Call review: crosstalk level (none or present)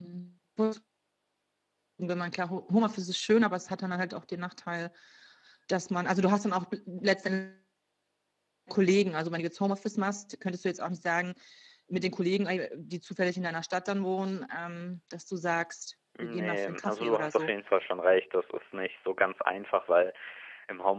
present